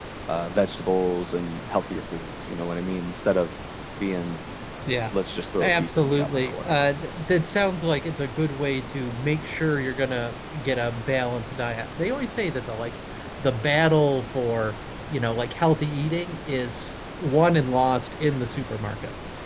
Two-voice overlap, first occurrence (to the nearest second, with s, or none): 6 s